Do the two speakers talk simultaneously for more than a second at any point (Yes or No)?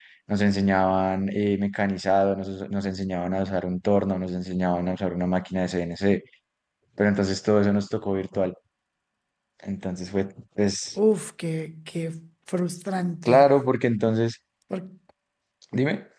No